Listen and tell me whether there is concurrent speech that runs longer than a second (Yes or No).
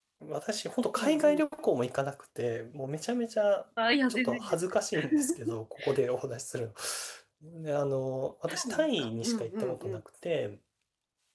Yes